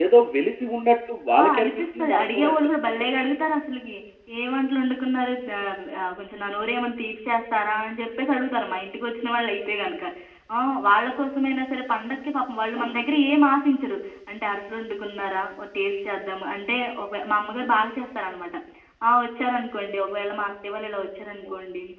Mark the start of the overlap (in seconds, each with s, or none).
1.6 s